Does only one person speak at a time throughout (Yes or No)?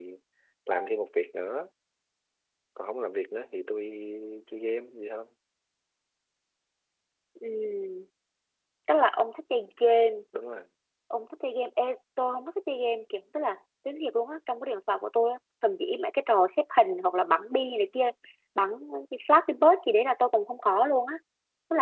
Yes